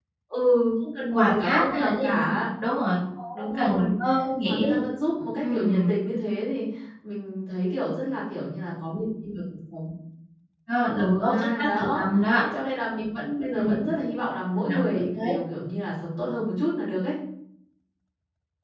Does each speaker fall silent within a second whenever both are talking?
No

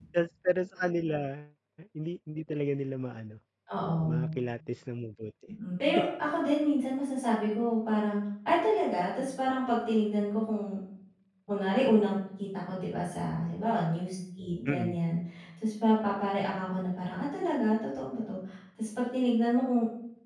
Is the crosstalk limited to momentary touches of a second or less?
Yes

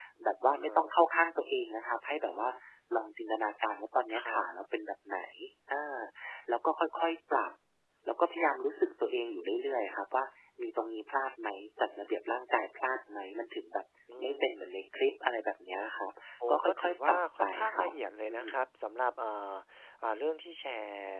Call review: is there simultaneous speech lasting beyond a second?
Yes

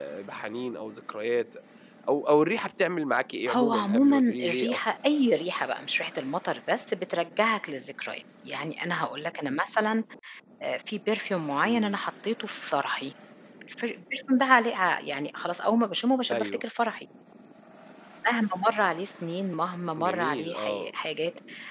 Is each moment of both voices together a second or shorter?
No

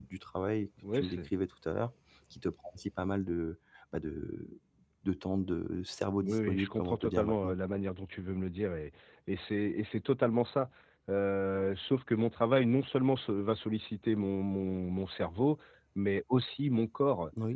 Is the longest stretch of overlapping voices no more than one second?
No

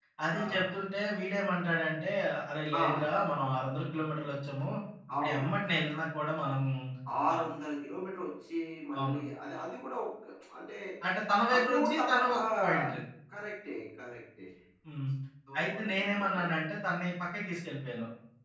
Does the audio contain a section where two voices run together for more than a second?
Yes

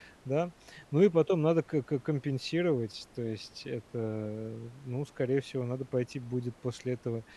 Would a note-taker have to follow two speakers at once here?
No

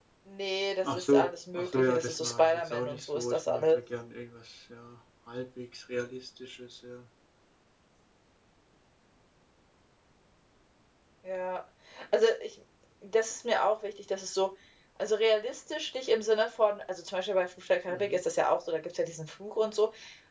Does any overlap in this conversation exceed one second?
Yes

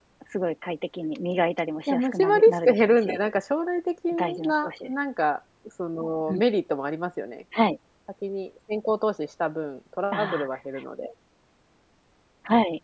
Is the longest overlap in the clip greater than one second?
Yes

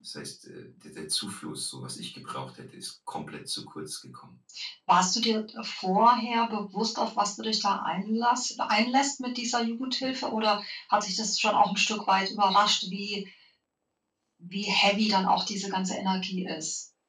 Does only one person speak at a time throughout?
Yes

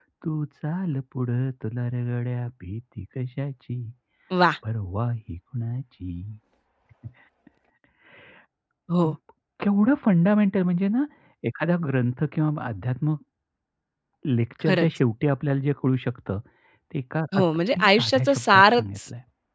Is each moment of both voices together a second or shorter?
No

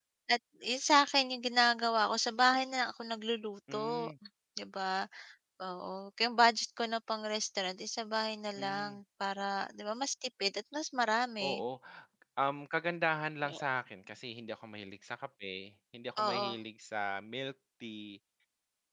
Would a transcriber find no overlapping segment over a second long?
Yes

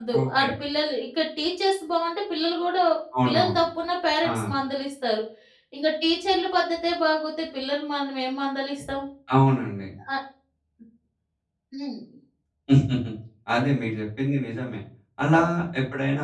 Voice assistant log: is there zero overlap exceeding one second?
Yes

